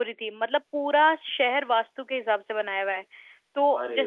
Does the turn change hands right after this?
No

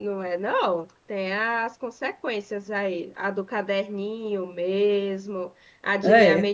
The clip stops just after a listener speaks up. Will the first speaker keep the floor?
Yes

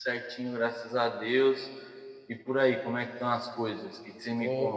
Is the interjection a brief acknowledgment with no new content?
No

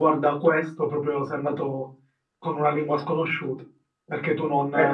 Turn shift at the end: No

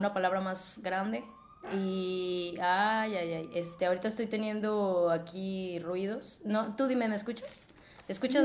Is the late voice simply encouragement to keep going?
No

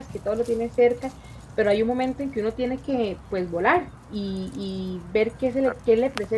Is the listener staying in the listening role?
Yes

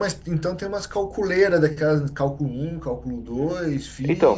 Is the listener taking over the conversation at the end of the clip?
Yes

